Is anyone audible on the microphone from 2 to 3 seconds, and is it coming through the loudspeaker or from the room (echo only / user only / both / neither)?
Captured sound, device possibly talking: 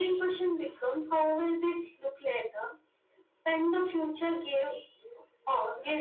echo only